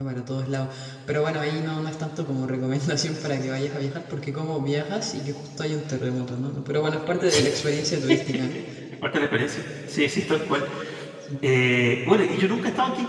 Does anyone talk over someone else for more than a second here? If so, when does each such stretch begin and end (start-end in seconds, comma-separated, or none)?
none